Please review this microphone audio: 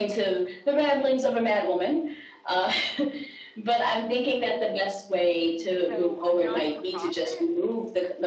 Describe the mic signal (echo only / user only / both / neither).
both